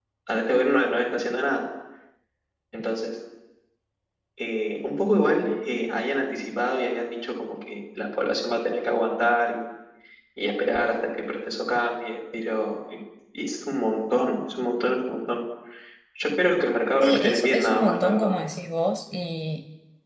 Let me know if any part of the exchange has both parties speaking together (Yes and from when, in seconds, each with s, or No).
Yes, from 17.0 s